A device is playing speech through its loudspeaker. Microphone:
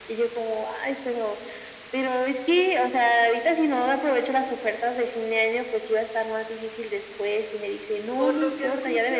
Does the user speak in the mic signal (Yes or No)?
Yes